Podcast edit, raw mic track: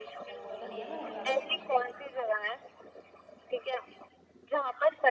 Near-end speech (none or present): present